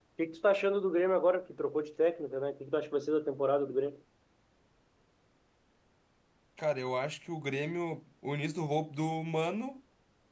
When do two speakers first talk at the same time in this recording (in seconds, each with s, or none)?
none